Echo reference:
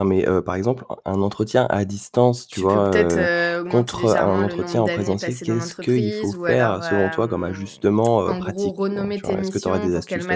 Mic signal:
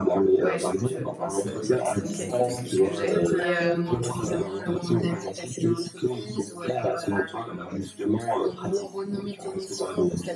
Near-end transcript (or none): ouais, je je pense, heu, que c'est une qualité que que j'ai et euh,